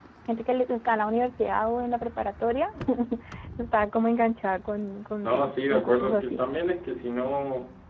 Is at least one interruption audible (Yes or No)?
Yes